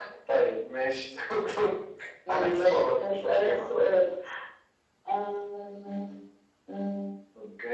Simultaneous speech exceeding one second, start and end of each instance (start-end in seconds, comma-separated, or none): 2.3-3.8